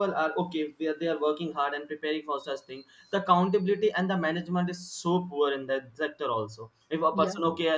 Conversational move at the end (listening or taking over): listening